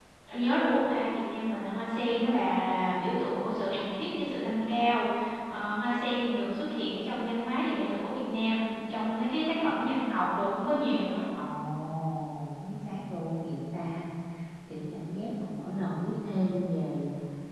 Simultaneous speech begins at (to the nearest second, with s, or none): none